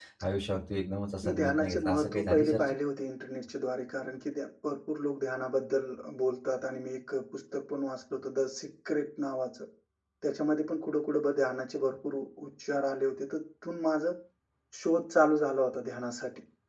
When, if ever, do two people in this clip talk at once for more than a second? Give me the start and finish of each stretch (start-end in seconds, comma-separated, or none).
1.2-2.7